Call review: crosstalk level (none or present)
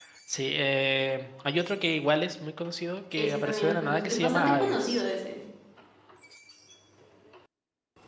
present